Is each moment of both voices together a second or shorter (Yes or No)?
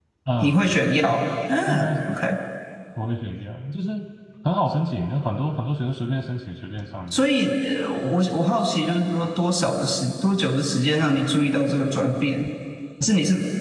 Yes